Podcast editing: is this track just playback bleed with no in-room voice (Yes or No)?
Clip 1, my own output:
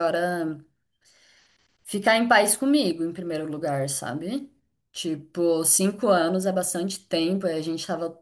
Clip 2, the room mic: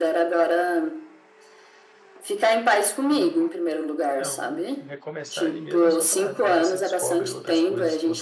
No